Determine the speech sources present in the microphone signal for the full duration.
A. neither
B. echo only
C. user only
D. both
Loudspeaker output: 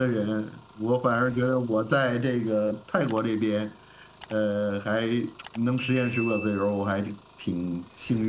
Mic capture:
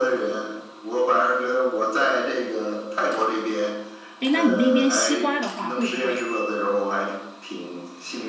D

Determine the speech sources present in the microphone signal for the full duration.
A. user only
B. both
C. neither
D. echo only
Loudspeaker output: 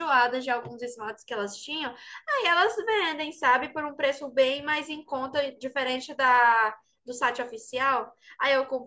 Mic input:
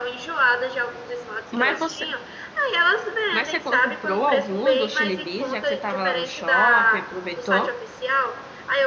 B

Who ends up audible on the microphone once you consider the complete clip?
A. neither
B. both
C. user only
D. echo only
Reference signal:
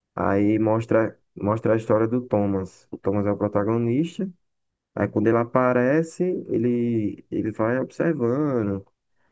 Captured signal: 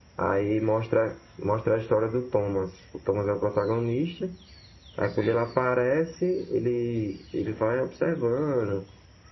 B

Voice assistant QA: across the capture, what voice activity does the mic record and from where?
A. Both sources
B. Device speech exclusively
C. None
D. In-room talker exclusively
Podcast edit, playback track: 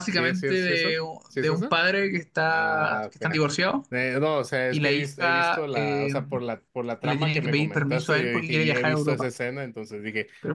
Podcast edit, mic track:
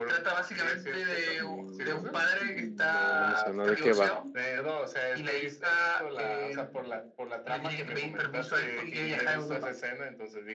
A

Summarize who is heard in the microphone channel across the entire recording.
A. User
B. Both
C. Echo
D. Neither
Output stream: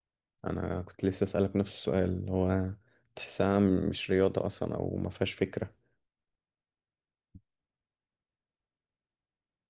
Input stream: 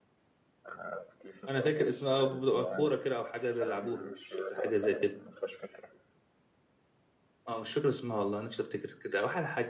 B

